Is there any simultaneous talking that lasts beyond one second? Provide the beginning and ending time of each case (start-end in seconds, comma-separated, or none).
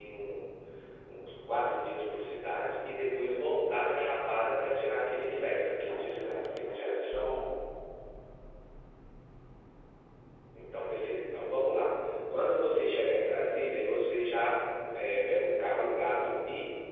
5.9-7.1